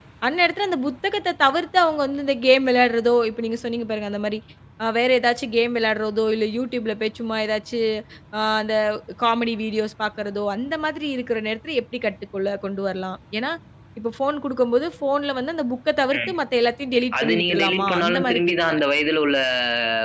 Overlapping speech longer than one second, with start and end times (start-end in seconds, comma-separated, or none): 17.2-18.8